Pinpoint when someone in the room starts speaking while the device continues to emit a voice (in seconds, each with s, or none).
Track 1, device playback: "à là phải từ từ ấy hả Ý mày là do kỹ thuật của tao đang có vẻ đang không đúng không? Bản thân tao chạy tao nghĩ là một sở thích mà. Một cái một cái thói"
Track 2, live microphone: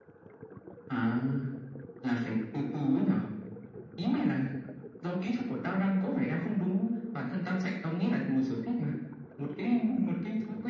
none